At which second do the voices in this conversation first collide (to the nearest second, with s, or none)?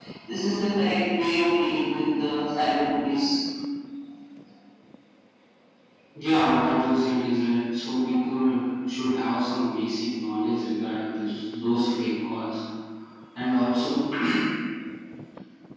none